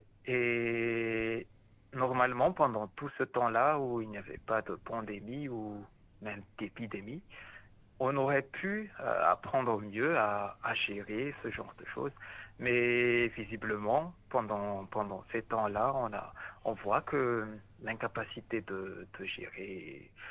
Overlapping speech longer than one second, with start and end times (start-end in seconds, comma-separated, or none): none